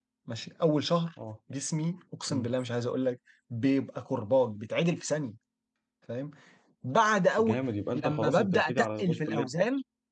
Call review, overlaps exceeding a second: present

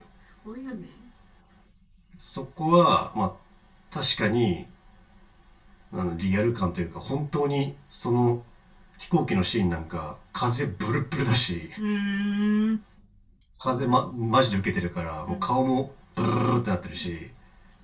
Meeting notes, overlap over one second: none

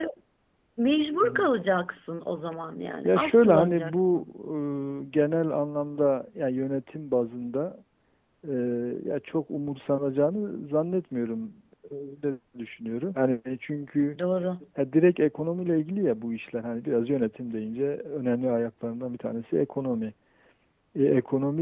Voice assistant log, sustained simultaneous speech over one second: present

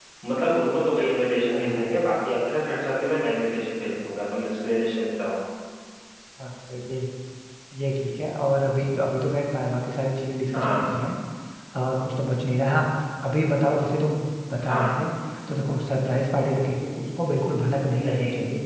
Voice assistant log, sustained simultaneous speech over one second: none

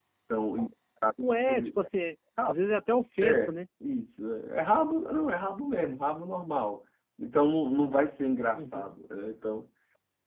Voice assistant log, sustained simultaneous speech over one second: none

